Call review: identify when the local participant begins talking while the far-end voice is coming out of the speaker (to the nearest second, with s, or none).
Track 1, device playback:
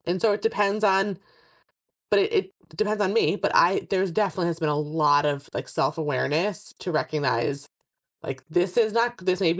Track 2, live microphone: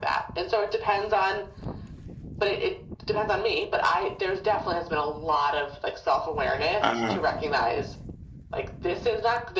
7 s